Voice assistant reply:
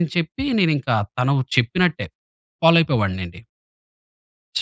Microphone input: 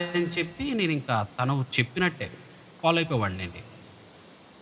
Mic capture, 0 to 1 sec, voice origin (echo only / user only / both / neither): echo only